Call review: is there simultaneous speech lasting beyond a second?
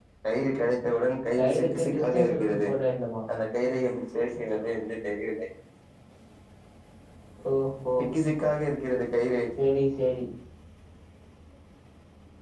Yes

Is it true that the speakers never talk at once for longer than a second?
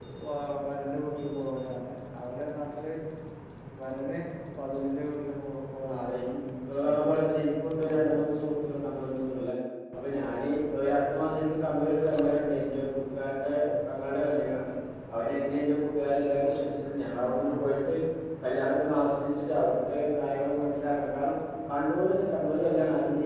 Yes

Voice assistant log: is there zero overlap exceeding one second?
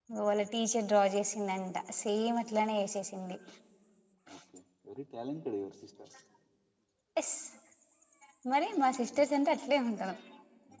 Yes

